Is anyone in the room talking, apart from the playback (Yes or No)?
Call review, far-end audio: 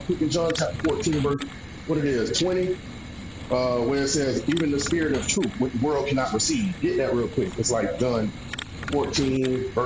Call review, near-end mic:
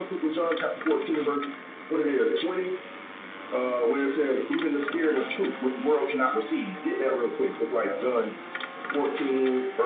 No